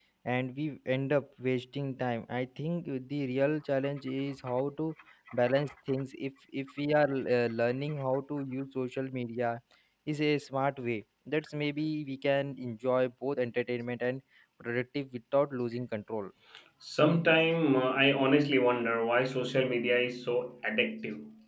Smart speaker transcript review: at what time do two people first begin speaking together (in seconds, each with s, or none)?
none